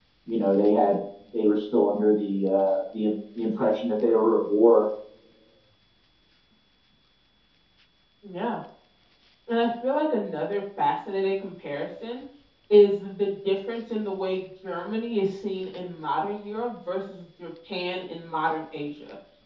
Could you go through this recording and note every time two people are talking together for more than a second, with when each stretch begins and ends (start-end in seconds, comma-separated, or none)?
none